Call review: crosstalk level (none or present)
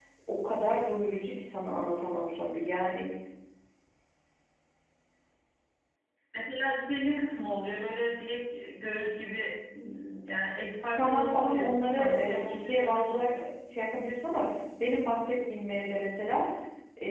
present